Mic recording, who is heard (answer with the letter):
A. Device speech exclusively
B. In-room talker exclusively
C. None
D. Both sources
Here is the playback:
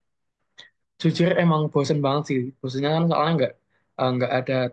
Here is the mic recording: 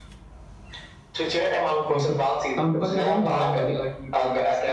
D